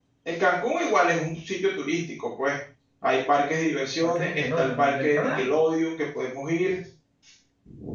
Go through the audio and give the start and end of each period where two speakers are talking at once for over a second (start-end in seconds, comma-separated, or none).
4.0-5.5